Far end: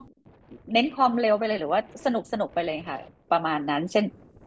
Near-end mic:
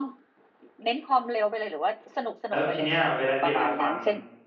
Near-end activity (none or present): present